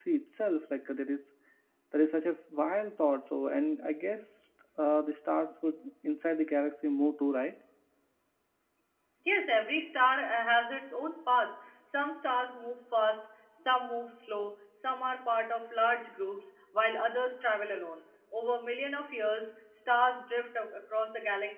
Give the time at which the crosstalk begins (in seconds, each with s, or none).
none